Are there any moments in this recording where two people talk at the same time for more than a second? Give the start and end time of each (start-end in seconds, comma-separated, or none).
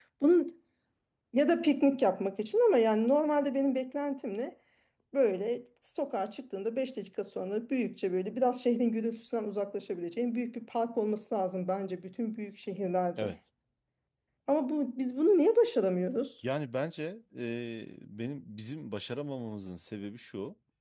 none